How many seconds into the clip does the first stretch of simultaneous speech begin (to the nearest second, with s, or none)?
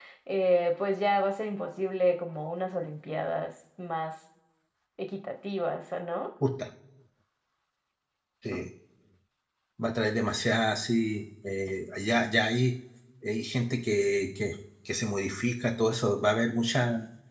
none